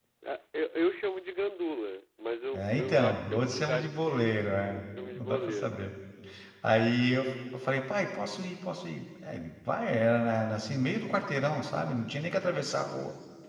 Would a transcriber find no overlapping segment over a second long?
No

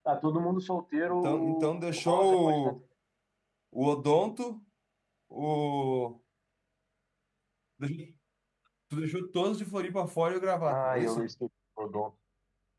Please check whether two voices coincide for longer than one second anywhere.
Yes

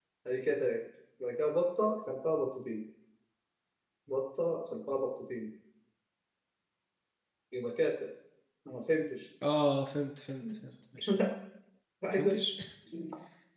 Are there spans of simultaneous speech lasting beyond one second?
No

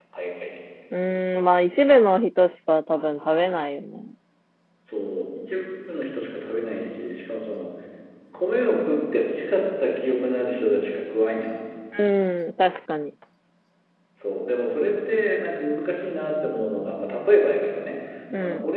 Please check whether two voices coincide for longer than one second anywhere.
No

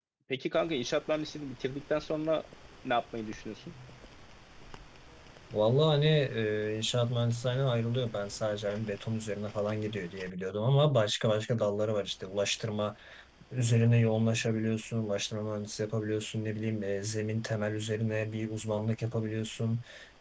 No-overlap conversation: Yes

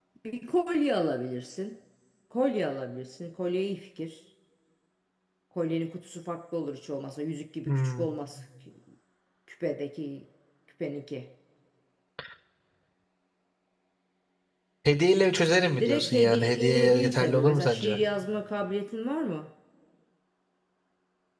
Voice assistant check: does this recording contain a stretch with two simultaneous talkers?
Yes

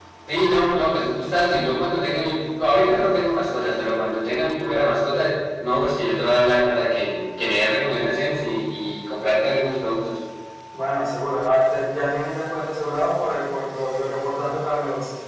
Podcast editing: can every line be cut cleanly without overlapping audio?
Yes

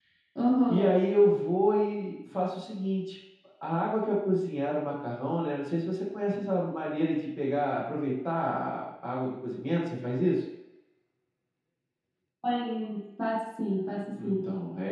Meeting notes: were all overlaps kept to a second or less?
Yes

